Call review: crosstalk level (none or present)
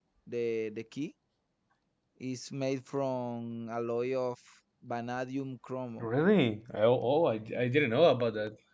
none